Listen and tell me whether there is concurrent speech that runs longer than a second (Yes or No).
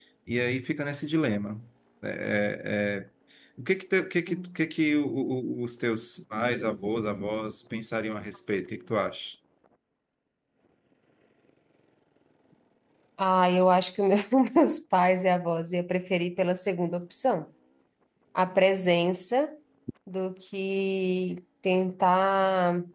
No